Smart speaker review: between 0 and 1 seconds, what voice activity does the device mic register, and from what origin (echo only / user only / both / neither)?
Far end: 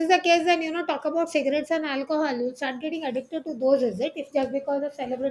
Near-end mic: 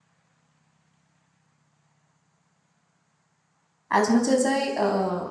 neither